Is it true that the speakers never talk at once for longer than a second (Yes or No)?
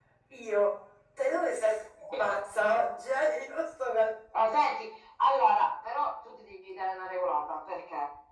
Yes